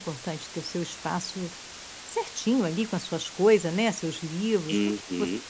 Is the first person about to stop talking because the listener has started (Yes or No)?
Yes